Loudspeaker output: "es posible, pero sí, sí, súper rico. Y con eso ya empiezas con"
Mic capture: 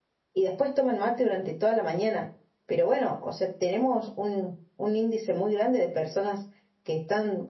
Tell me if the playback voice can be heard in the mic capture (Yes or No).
No